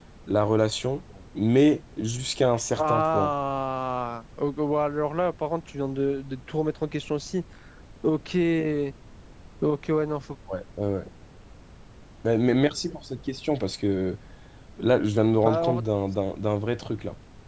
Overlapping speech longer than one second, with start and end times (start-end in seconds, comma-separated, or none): none